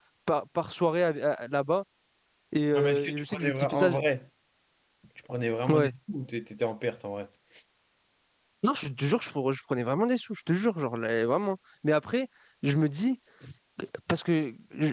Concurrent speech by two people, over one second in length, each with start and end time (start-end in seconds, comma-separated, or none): 2.7-4.0